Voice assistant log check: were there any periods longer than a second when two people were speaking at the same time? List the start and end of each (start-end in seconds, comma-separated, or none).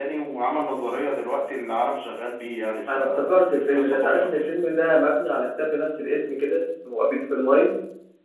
2.9-4.3